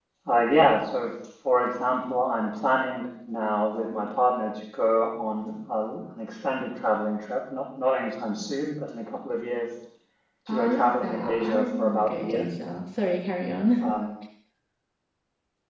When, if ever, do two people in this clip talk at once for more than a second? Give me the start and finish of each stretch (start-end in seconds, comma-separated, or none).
10.5-12.5